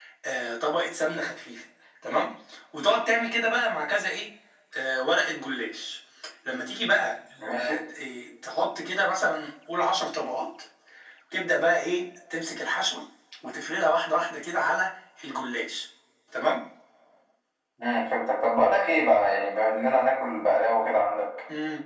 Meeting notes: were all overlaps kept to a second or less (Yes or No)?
Yes